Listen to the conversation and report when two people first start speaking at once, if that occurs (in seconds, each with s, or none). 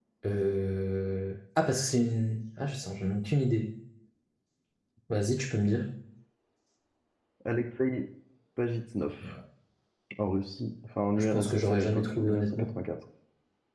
11.2 s